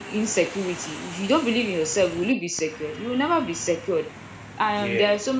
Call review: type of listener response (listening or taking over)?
listening